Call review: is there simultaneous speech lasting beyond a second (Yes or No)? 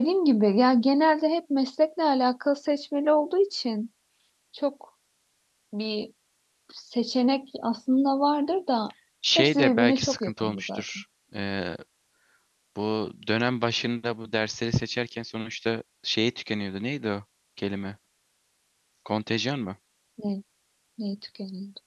Yes